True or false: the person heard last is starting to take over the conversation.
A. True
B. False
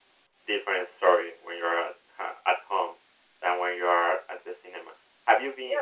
A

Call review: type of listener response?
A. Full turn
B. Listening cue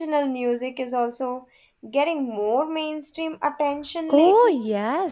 A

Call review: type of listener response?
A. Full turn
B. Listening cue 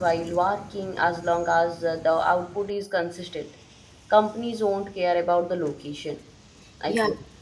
A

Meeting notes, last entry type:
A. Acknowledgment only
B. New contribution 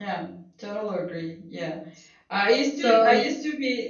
A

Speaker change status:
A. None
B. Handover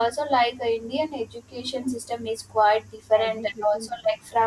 A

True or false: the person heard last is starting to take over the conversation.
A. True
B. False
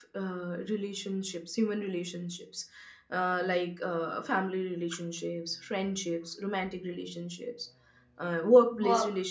B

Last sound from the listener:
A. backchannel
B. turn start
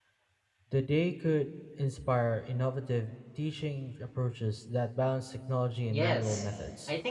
B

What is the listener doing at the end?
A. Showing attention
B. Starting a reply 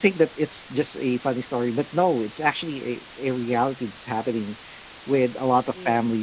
A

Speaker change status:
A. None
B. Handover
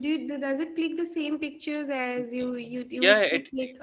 B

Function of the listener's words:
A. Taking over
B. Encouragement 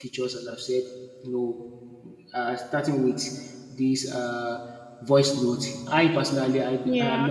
B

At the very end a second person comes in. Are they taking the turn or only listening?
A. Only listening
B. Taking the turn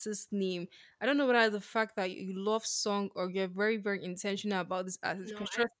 A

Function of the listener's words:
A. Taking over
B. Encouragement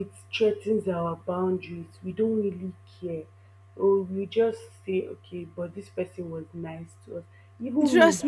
A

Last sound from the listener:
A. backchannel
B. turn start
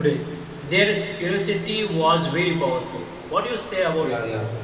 B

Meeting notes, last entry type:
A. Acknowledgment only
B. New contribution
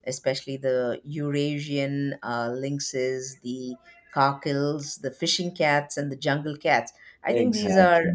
A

